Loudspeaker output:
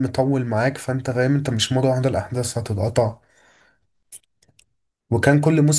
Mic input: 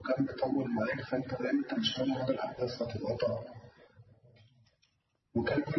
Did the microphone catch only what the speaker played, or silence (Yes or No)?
Yes